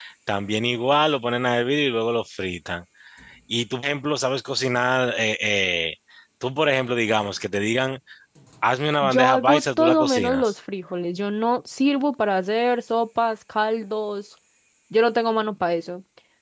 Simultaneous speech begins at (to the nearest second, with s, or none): 9 s